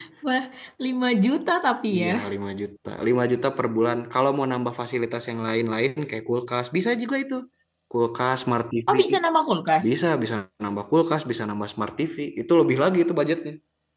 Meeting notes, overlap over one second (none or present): none